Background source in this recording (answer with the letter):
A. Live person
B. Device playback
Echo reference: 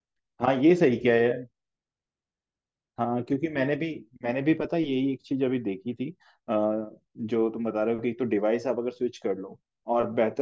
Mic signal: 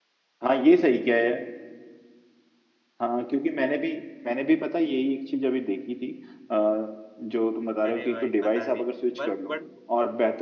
A